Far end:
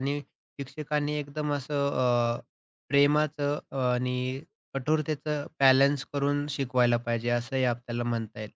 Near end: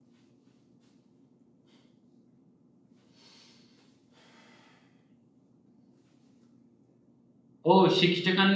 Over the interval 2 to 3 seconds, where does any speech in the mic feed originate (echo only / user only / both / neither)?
neither